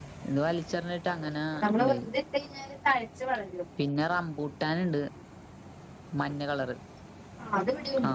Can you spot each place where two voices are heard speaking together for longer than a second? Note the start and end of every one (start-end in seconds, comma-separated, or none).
none